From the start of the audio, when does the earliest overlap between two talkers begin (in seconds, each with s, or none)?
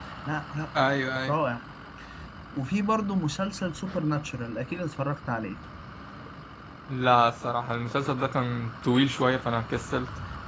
none